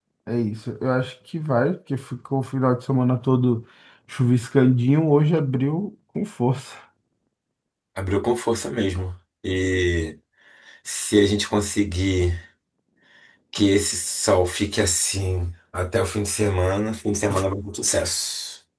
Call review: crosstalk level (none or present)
none